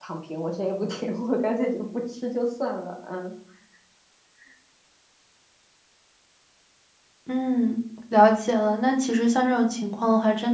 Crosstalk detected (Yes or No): No